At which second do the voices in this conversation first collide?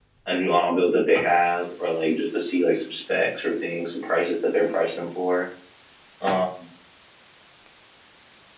none

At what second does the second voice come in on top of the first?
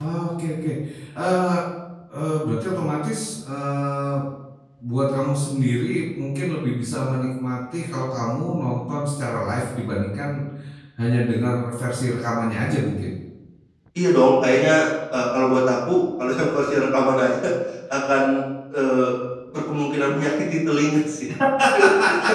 none

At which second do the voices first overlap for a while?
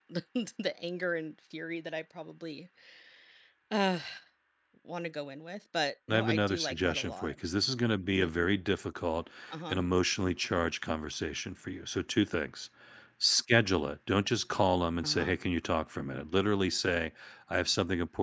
6.1 s

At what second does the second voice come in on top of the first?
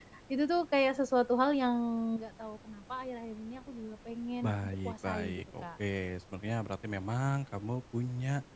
4.4 s

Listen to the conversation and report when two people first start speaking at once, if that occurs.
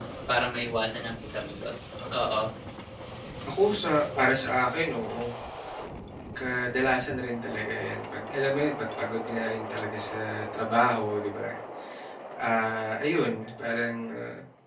none

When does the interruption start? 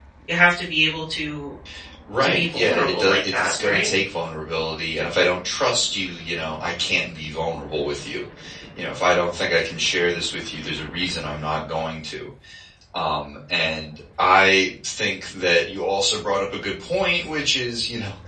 2.2 s

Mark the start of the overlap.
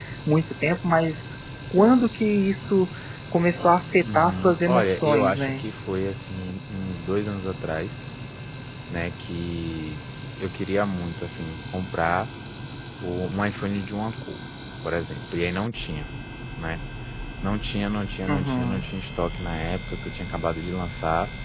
4.0 s

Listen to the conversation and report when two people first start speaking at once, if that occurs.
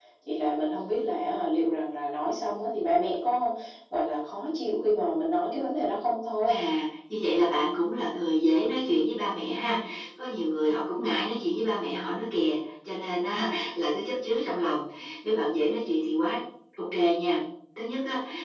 none

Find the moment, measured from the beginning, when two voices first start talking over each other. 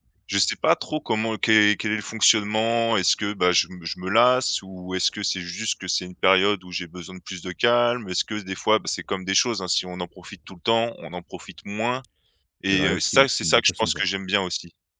12.7 s

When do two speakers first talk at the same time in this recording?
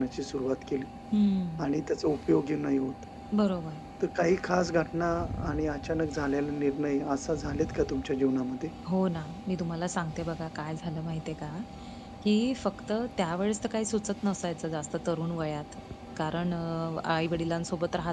none

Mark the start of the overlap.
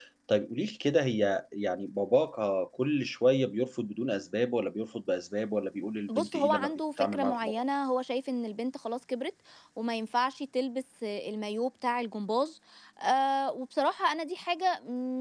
6.1 s

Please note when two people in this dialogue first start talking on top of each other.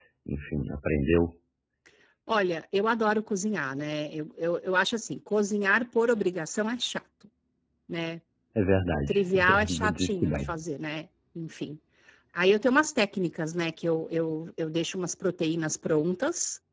9.1 s

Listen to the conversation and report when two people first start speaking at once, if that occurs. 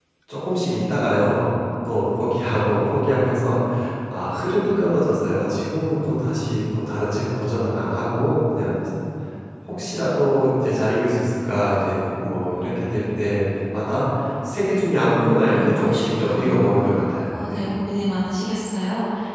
15.1 s

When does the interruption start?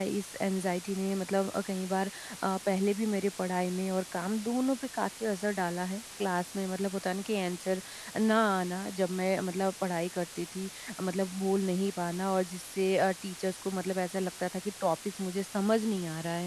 none

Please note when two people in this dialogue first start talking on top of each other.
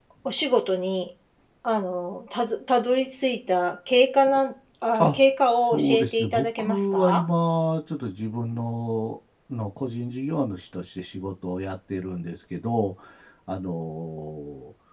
4.9 s

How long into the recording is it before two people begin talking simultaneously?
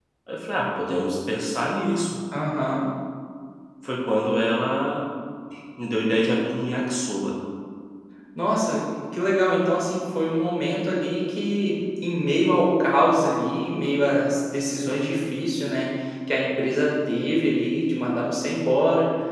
none

